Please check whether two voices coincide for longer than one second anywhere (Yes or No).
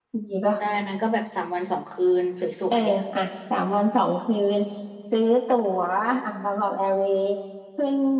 No